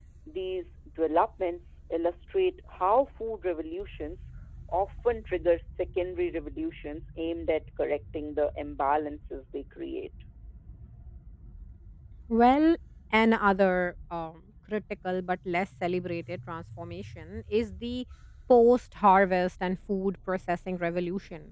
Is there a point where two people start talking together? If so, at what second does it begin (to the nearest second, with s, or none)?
none